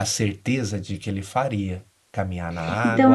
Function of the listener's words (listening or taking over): taking over